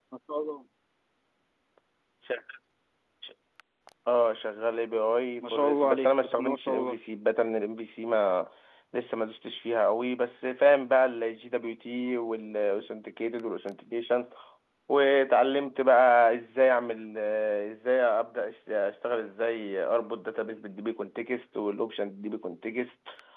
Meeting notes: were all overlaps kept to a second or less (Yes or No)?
No